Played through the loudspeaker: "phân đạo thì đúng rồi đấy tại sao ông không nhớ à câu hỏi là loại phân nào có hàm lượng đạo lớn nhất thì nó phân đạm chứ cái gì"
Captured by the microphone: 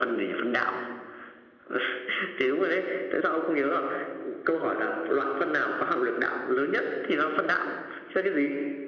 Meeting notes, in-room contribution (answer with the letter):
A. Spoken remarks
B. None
B